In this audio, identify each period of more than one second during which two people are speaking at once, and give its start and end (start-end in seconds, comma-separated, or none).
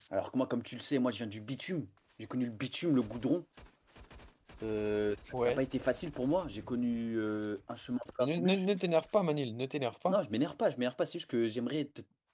none